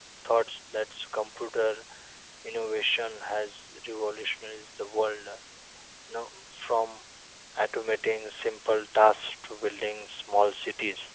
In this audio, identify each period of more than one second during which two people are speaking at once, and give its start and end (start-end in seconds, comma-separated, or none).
none